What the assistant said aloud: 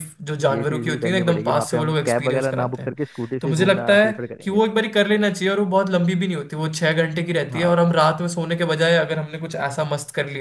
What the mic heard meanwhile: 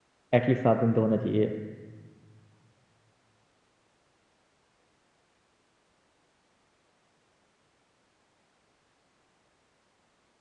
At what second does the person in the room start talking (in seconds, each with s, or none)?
0.3 s